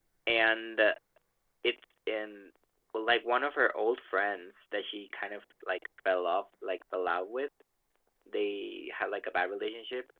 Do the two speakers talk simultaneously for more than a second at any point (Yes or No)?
No